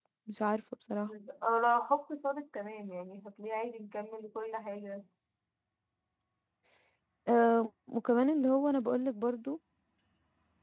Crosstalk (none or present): none